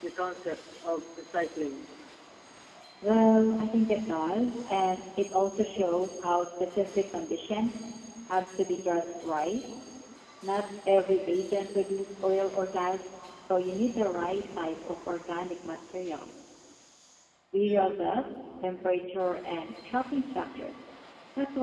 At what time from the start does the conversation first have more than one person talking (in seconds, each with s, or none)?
none